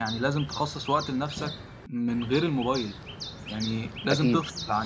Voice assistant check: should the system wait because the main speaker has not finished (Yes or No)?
Yes